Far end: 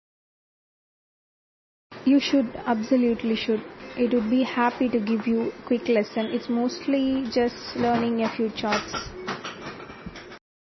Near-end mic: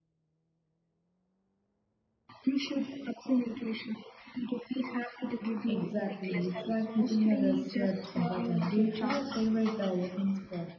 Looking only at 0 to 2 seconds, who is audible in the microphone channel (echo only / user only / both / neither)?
neither